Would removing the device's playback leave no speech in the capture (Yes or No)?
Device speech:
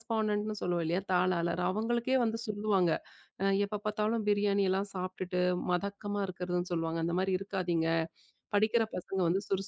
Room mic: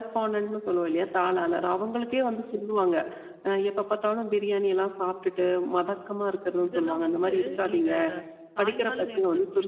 No